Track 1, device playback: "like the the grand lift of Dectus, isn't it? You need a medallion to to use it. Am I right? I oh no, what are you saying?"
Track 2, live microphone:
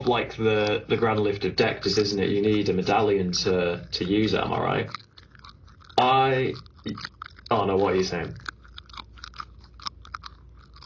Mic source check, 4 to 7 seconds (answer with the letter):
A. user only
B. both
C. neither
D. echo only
D